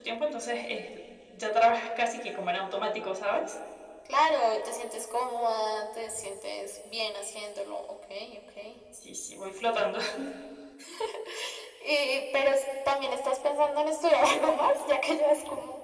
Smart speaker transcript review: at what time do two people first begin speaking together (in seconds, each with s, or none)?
none